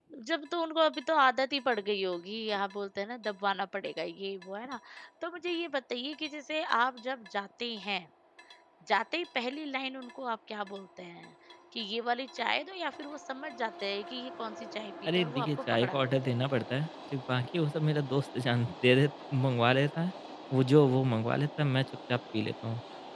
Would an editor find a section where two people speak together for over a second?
Yes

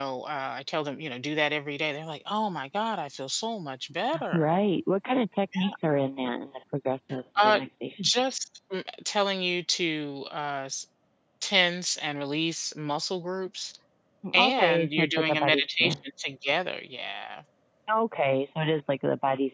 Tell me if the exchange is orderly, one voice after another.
No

